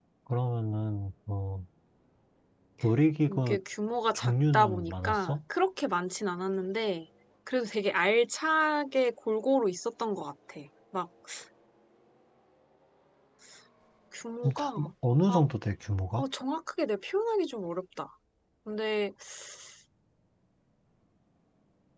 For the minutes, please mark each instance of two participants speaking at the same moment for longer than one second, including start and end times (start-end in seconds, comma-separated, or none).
4.1-5.4